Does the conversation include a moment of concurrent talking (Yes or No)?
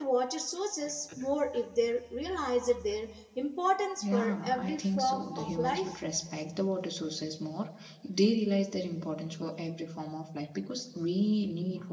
Yes